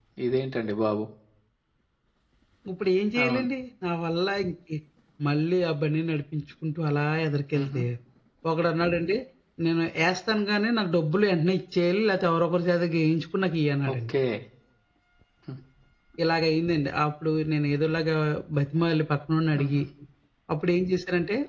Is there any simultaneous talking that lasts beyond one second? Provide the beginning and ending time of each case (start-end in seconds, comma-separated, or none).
none